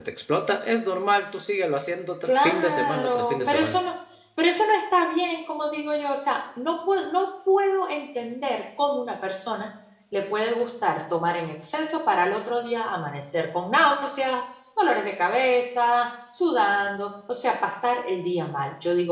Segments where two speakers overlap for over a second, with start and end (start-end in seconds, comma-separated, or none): 2.2-3.8